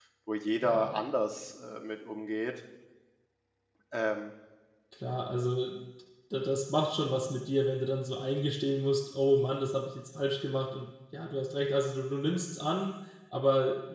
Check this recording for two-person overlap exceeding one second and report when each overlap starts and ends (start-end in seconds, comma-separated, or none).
none